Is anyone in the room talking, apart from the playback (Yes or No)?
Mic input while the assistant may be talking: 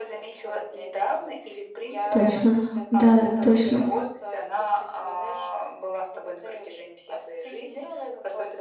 Yes